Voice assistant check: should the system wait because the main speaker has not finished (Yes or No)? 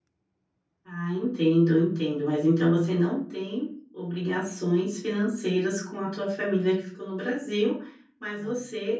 Yes